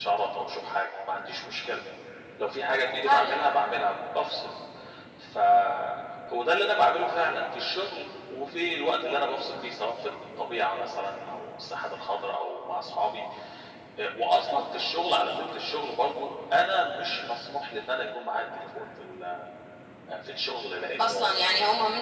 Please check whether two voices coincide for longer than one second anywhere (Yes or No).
No